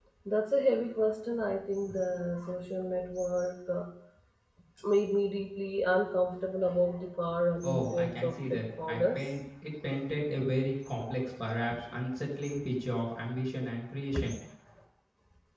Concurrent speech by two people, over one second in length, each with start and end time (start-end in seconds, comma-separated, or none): 7.6-9.2